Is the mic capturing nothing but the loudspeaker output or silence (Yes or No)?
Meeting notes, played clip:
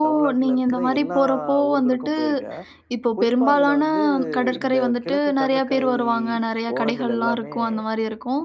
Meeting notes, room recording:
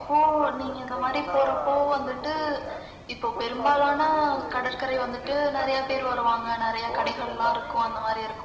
Yes